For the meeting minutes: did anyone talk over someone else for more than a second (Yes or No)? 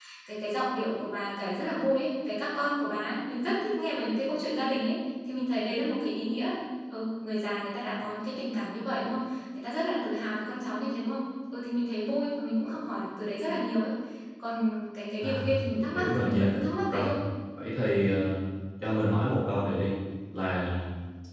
Yes